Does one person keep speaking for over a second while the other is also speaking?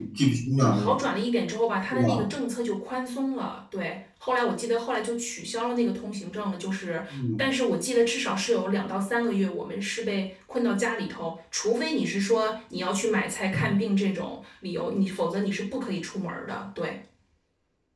No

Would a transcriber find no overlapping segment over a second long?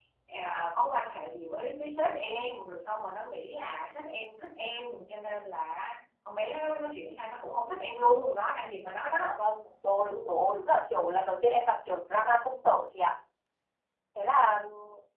Yes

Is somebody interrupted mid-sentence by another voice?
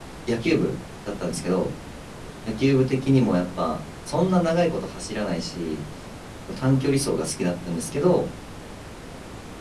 No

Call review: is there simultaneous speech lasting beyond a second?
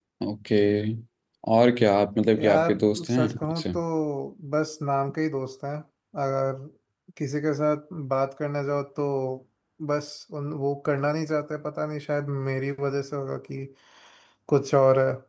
Yes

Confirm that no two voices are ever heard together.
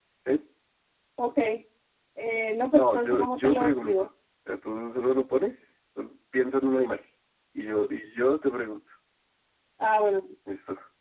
No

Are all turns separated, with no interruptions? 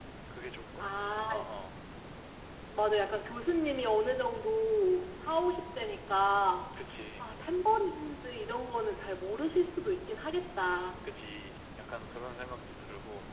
Yes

